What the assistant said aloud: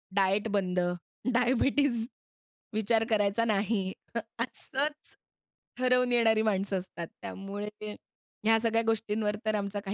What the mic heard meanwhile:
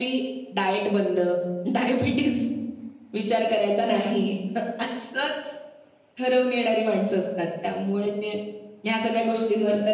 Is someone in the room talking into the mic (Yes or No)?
No